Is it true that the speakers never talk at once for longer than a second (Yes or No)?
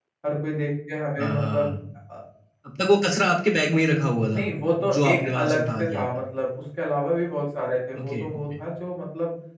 No